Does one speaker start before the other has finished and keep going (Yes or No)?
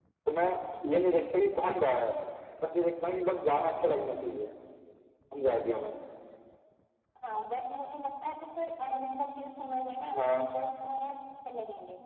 No